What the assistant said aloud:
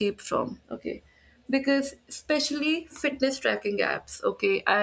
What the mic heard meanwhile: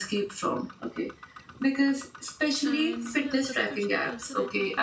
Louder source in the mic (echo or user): echo